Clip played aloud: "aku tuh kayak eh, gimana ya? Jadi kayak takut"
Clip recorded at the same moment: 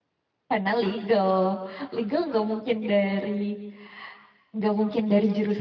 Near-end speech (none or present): present